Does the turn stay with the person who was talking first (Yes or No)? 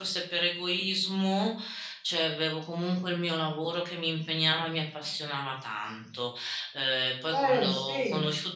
Yes